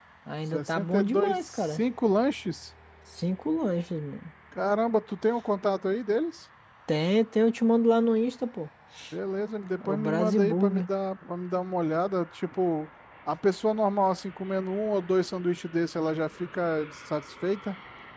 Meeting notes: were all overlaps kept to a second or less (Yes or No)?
No